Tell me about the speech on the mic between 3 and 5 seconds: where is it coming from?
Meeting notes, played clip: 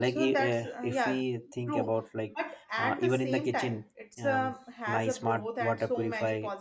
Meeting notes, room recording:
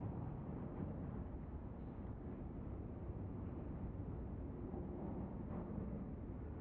neither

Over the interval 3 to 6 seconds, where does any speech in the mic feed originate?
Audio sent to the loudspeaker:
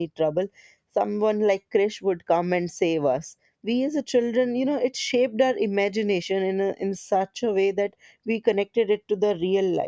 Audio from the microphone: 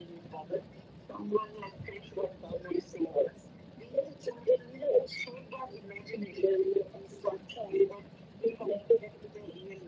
echo only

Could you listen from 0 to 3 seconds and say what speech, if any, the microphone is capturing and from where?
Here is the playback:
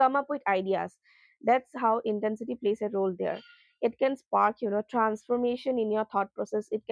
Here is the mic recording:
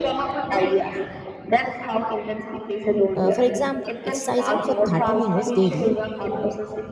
echo only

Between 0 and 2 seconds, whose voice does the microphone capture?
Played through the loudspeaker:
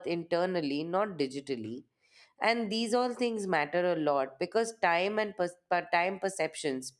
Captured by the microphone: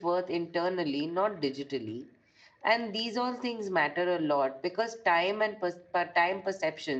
echo only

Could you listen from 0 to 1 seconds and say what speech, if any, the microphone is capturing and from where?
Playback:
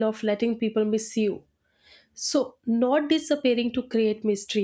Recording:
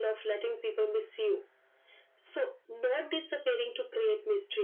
echo only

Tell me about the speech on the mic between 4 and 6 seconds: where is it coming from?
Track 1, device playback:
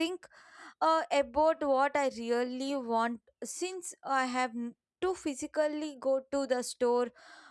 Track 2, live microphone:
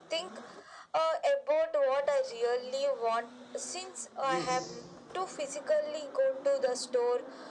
both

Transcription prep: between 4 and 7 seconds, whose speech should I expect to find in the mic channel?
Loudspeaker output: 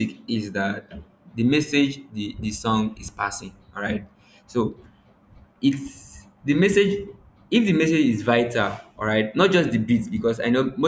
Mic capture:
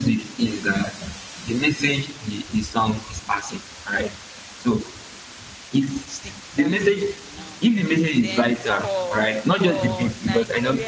both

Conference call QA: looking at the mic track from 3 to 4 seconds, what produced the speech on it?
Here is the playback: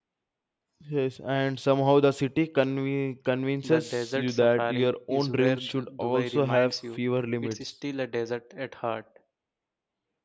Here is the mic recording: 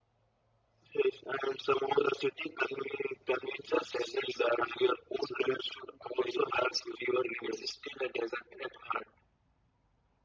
echo only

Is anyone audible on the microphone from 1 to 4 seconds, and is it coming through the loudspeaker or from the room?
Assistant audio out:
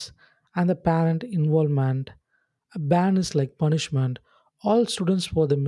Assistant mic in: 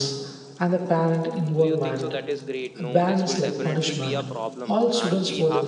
both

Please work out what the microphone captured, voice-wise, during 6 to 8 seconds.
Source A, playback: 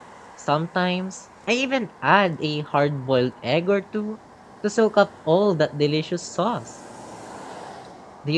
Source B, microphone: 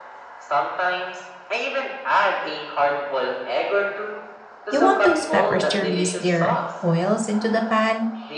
both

